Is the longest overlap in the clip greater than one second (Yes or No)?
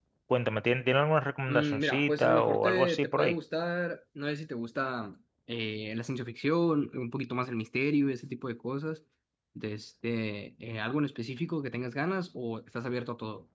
Yes